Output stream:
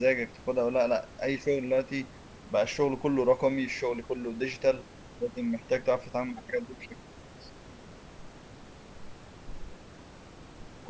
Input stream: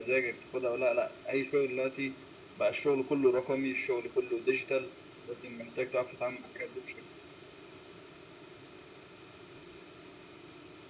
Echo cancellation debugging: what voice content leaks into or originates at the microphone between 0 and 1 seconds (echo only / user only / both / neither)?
echo only